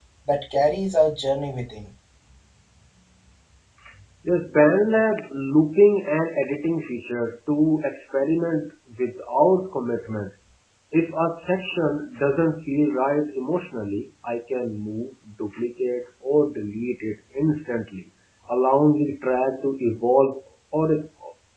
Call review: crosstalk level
none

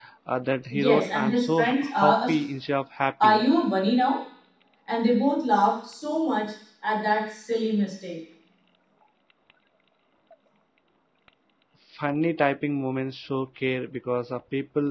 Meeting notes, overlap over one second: present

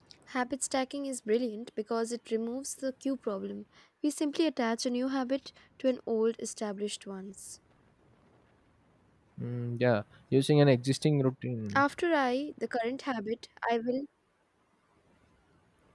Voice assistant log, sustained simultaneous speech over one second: none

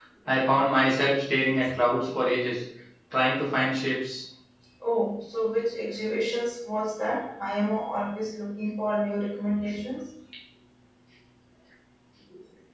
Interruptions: none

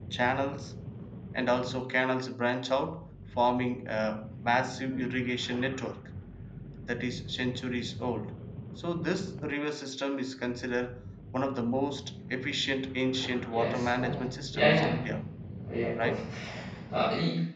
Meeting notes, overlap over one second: present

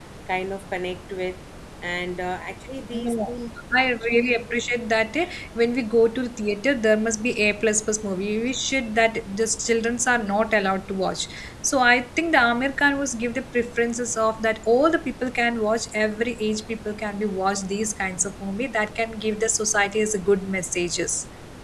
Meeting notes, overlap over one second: none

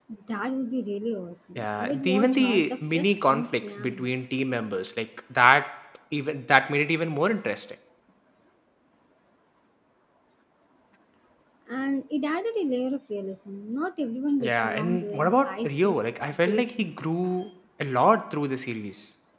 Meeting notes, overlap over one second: present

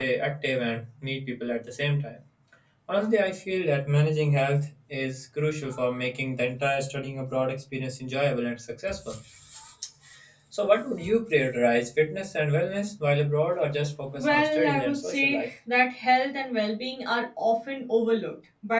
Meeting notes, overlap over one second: present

